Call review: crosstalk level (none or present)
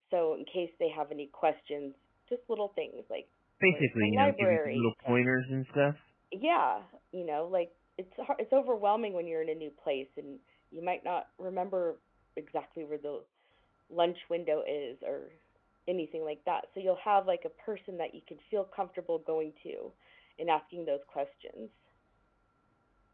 present